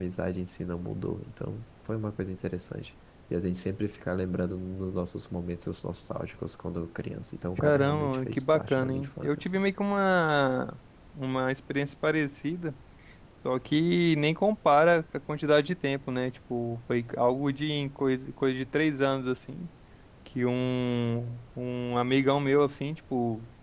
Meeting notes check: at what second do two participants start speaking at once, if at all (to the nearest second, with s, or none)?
8 s